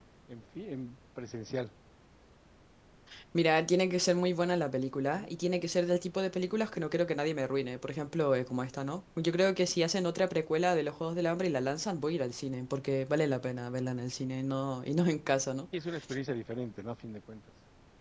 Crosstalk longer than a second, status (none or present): none